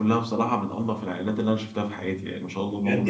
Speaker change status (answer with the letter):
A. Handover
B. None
A